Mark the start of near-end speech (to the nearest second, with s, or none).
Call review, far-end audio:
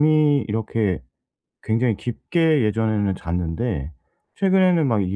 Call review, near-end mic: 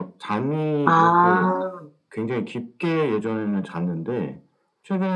1 s